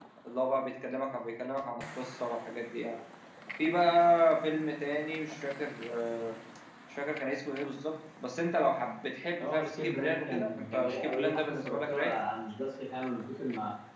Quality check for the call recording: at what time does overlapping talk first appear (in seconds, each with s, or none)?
9.4 s